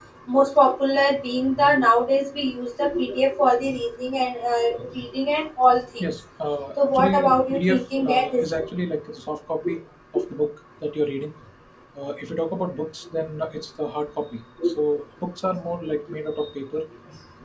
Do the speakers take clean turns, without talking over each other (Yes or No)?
No